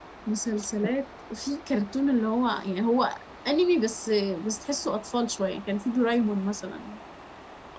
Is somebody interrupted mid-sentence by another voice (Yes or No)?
No